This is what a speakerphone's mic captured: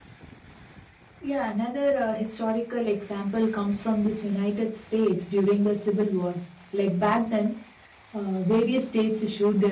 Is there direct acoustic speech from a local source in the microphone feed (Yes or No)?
Yes